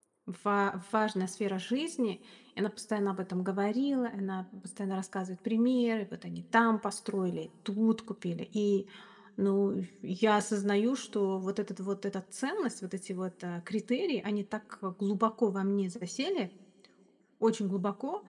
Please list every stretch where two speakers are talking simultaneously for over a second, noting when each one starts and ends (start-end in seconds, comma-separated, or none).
none